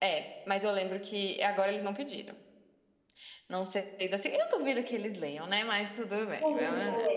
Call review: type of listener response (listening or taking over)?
taking over